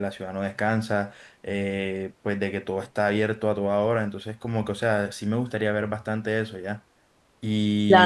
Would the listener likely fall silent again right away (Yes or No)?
Yes